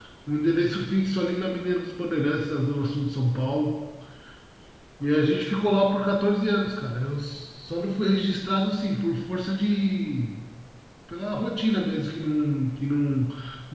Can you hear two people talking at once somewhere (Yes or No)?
No